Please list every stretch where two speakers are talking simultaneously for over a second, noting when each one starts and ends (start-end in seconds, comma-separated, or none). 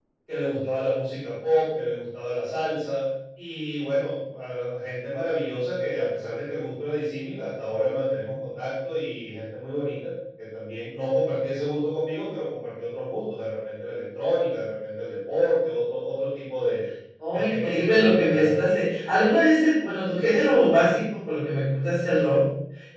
17.3-18.8